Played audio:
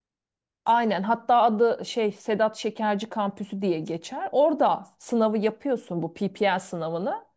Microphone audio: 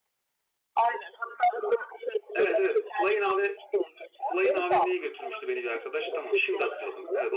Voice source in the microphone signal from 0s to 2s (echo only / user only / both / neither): echo only